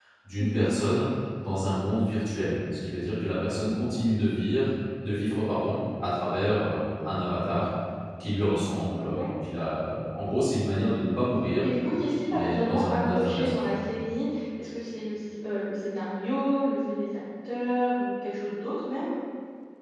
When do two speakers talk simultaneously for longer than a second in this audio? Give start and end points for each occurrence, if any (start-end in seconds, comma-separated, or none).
12.2-13.6